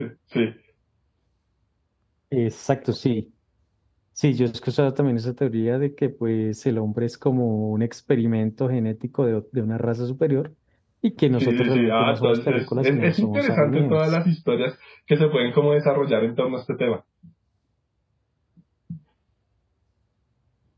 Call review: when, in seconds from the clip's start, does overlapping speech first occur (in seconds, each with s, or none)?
11.3 s